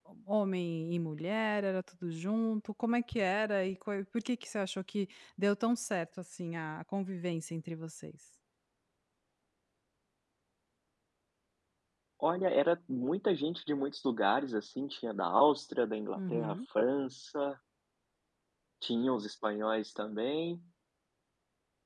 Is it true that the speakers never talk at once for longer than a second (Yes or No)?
Yes